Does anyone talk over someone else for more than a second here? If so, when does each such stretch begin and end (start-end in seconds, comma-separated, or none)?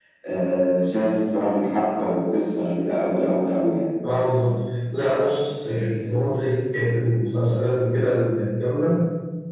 none